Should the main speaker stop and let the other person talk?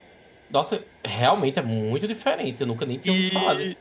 Yes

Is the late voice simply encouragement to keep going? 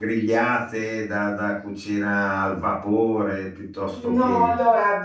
No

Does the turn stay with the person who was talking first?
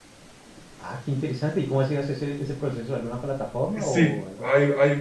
No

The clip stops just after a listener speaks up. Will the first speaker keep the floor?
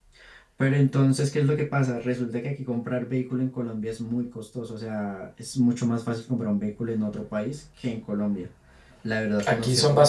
No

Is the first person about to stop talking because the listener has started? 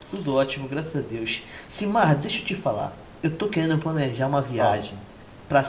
No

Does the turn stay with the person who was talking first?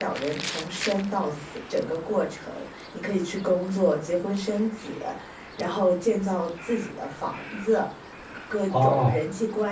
Yes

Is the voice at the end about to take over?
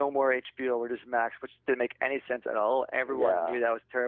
No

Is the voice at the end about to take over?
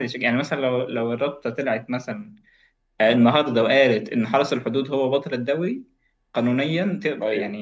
No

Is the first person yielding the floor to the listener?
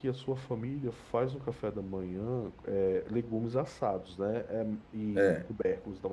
No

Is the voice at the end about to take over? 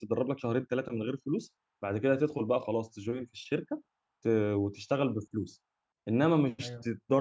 No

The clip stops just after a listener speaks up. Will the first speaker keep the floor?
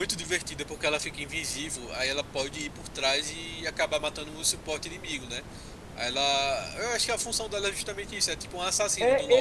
No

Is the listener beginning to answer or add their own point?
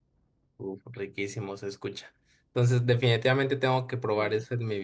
No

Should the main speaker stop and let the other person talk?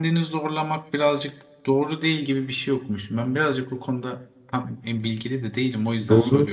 Yes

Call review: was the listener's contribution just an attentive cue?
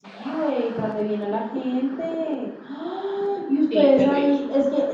Yes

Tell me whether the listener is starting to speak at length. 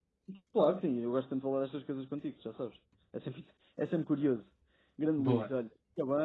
No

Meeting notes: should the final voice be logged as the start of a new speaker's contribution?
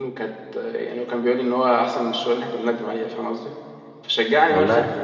No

